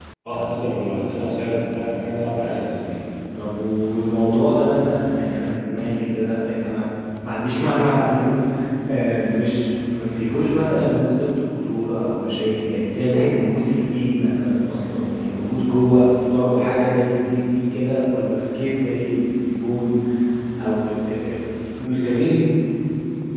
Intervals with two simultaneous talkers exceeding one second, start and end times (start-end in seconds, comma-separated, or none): none